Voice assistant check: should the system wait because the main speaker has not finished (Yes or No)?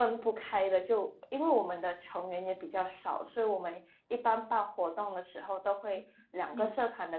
Yes